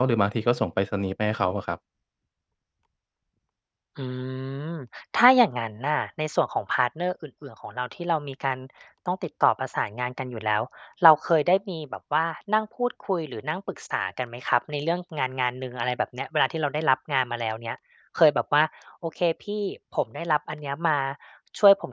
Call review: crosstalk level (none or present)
none